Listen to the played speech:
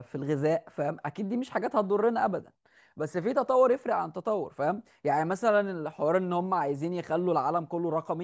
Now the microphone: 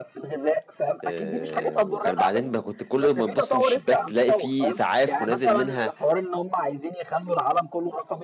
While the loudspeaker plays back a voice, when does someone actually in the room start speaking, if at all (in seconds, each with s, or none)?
1.0 s